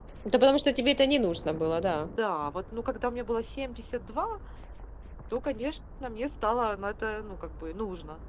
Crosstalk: none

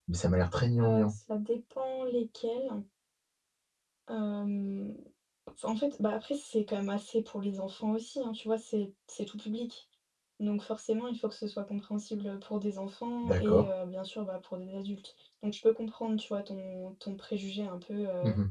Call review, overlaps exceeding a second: none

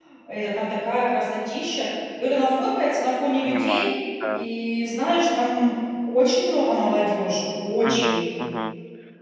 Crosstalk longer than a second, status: none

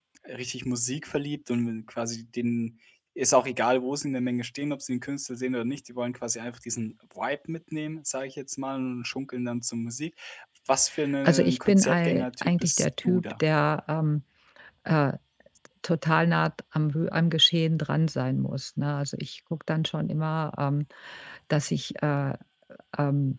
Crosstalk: present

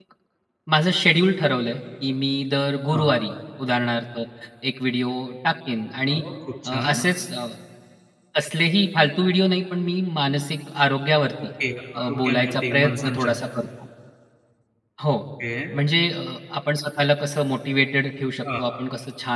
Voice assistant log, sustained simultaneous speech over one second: present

